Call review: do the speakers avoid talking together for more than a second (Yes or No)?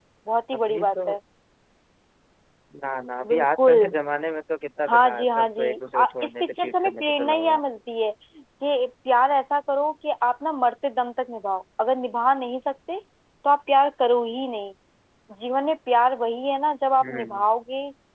No